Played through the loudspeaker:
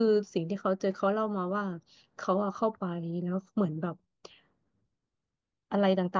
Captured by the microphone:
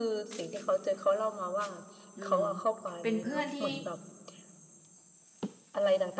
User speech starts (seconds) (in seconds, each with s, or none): 2.2 s